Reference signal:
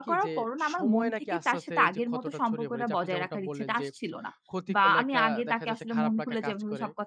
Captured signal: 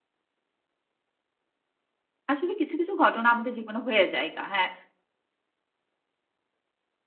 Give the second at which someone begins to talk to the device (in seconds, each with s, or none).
2.3 s